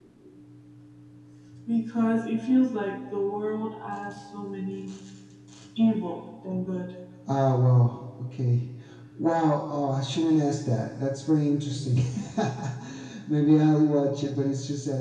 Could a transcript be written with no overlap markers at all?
Yes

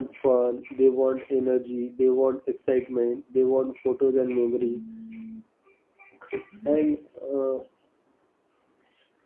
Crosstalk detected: No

